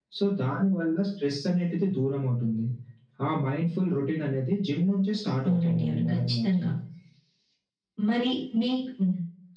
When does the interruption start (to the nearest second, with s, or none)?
5 s